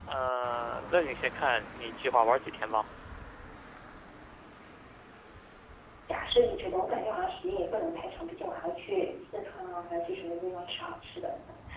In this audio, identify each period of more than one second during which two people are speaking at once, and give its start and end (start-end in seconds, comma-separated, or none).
none